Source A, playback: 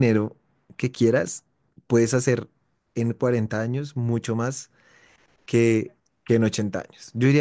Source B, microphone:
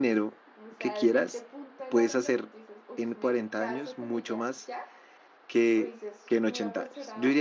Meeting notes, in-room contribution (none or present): present